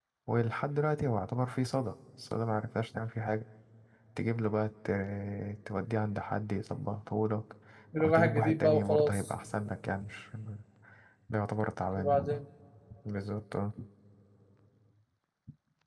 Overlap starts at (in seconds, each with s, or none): 8.0 s